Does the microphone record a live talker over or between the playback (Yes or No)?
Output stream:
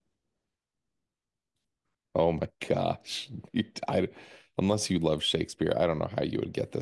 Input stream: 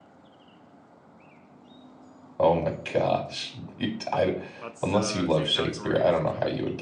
Yes